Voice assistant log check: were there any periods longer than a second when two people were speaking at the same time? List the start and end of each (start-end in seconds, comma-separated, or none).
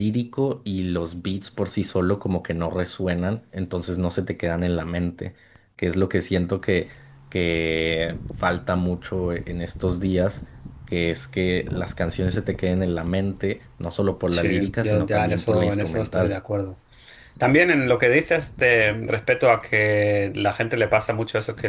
14.3-16.4